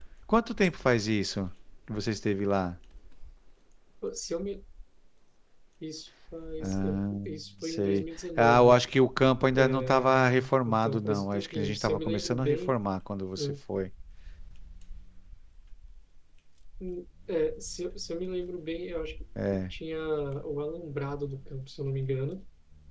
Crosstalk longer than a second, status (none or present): present